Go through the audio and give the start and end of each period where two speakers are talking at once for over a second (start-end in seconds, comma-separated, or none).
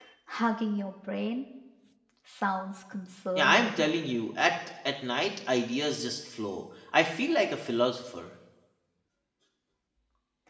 none